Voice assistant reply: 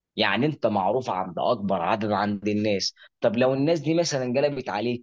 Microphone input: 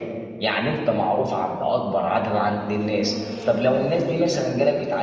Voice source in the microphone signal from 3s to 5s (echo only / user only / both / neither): echo only